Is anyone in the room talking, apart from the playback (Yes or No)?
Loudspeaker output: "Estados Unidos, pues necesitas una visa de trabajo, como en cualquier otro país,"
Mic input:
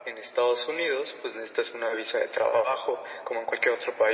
No